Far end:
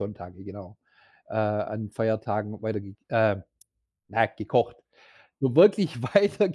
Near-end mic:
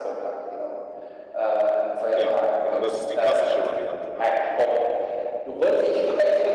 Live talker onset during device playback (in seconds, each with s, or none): 2.1 s